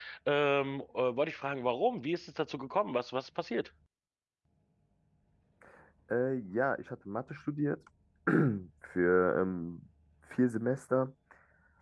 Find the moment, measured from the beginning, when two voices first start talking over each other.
none

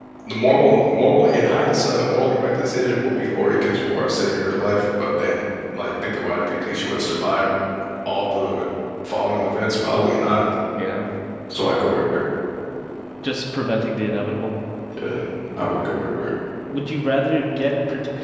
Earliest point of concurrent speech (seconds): none

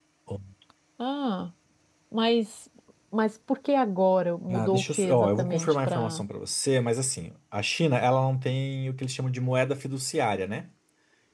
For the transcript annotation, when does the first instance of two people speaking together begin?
4.5 s

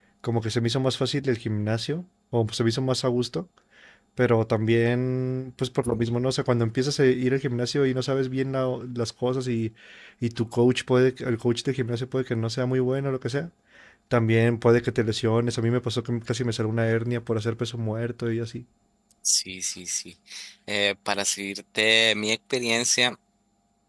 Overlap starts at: none

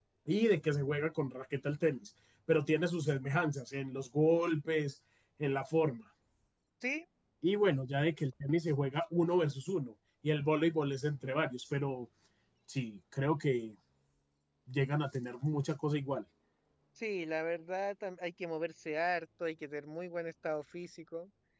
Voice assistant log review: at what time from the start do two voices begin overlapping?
none

